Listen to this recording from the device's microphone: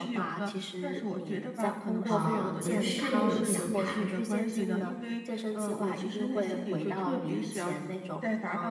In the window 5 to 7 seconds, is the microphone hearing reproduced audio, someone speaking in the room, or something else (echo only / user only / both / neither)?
echo only